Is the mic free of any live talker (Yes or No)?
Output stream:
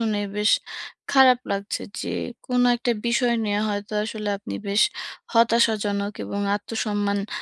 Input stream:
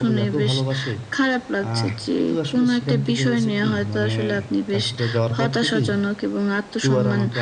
No